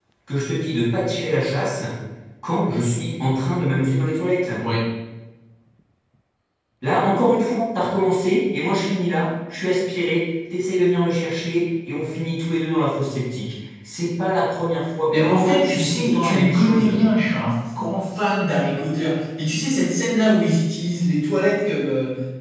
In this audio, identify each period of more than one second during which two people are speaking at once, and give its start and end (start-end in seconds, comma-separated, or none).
15.1-17.0